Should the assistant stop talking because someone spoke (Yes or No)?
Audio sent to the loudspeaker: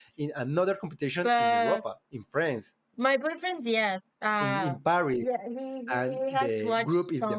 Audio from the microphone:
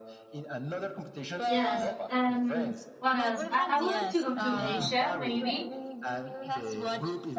Yes